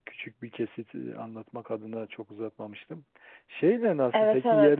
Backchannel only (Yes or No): Yes